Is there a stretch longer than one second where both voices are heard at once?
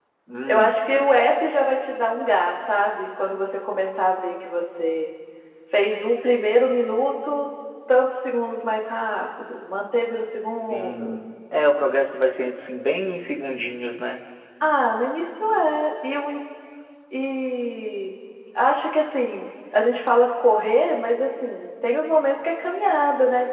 No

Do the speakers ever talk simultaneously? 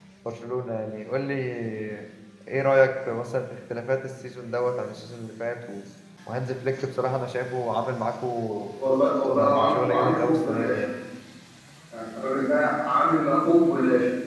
Yes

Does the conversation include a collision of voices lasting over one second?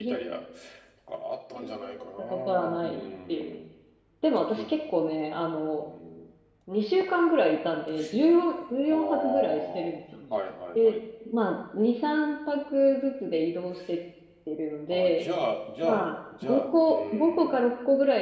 Yes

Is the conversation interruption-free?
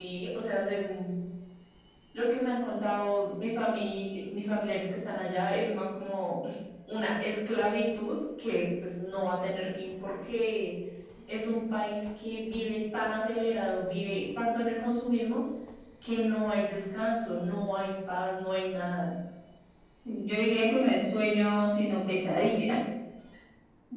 Yes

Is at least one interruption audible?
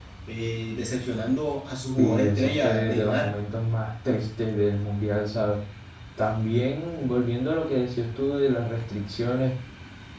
Yes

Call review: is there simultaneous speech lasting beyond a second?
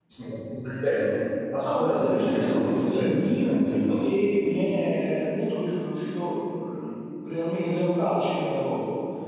Yes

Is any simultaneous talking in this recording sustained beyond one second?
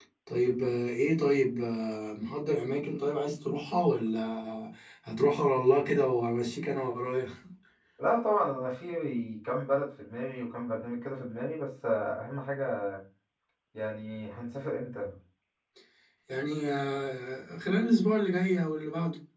No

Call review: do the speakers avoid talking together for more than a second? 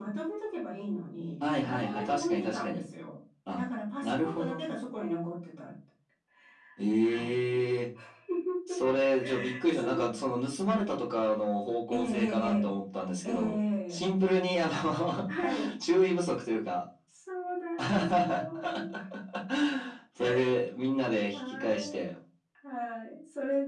No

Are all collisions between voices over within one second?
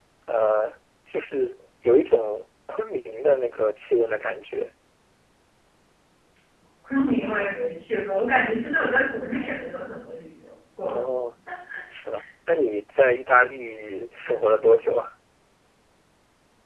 Yes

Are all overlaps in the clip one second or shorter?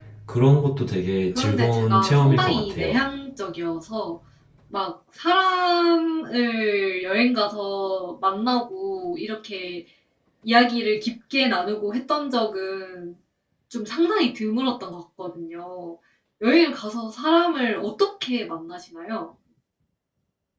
No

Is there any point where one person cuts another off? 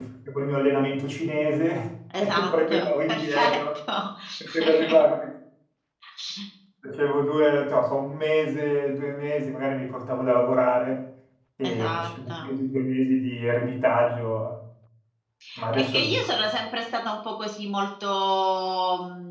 Yes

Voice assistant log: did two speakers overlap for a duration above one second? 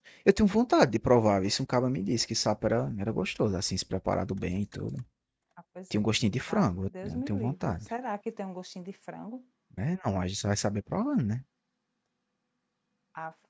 Yes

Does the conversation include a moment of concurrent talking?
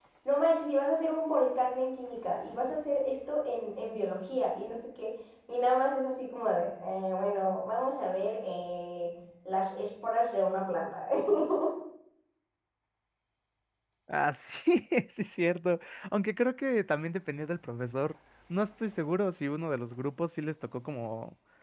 No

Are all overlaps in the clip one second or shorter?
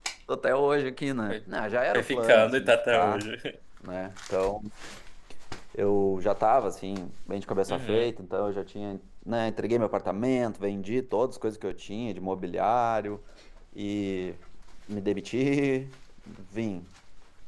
No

